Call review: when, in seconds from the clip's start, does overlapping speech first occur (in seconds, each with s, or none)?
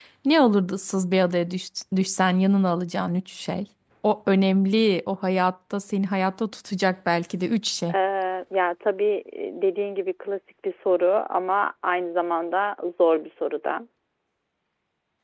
none